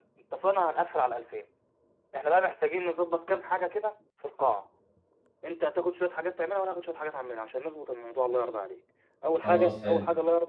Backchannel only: Yes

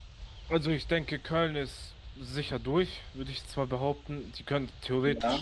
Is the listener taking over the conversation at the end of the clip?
No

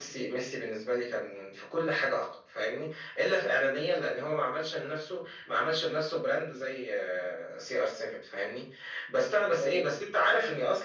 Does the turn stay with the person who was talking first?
Yes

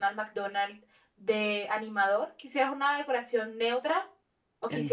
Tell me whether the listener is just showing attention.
No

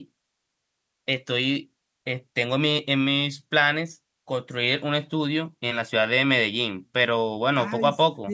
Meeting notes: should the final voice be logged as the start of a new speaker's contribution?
Yes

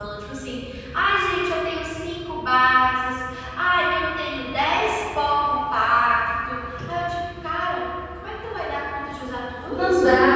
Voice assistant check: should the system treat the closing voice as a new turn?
Yes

